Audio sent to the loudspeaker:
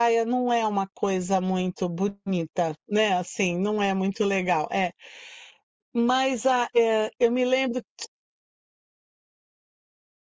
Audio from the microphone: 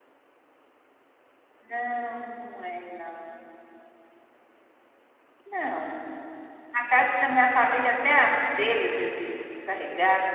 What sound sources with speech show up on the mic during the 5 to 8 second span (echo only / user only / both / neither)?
user only